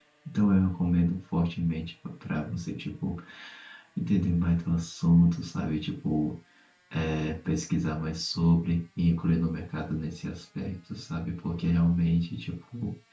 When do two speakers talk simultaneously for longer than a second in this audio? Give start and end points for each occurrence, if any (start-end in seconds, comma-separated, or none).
none